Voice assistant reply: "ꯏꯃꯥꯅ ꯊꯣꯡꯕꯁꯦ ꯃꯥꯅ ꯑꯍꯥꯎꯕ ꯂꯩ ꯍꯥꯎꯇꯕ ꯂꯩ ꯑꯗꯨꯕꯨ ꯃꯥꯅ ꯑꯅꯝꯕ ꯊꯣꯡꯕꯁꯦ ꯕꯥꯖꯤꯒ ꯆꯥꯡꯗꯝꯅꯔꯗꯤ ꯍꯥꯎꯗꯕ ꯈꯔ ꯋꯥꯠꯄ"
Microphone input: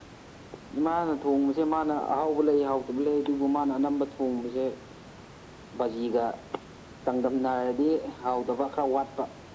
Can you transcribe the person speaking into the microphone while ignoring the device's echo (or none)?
none